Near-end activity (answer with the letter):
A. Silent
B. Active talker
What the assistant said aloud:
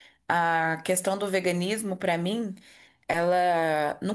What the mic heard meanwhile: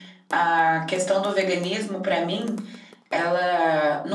A